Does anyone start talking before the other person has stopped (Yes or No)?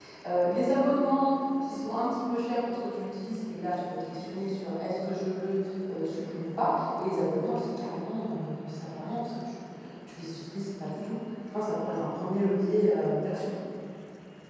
No